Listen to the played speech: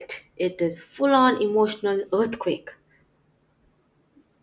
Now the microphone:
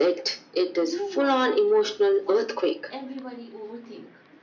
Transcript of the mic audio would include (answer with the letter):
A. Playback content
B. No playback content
A